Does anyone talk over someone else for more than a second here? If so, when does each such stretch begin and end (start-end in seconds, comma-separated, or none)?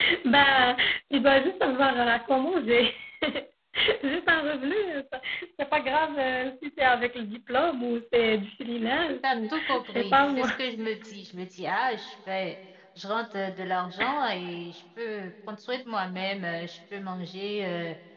9.2-10.5